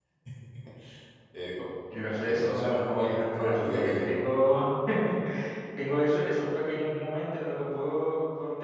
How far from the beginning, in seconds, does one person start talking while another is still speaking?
2.2 s

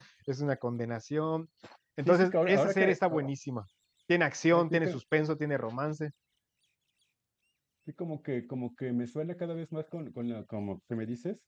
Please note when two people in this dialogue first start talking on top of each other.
2.0 s

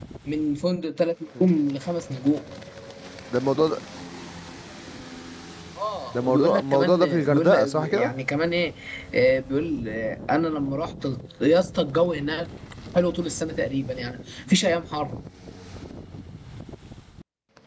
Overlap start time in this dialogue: 6.2 s

